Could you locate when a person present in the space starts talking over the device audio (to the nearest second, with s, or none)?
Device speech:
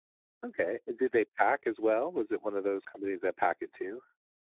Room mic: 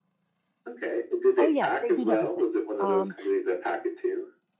1 s